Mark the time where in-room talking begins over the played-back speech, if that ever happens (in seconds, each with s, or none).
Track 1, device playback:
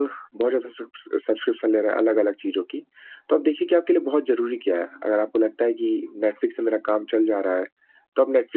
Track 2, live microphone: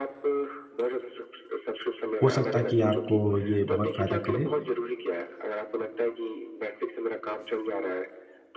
2.2 s